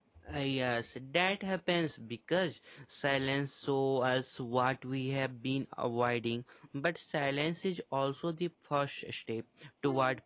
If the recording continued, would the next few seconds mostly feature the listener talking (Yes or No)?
No